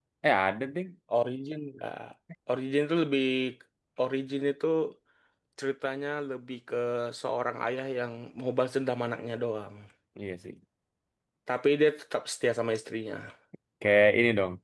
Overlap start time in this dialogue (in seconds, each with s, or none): none